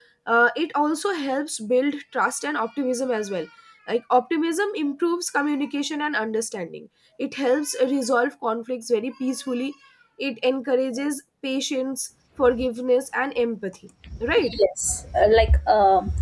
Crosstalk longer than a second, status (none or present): none